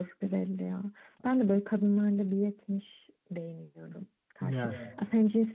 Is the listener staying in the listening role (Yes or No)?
Yes